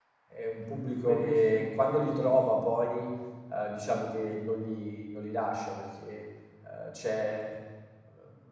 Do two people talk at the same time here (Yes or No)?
Yes